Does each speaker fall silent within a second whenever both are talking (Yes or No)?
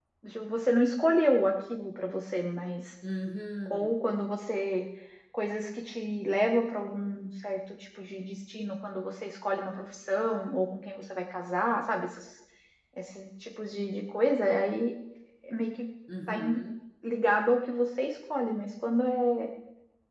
Yes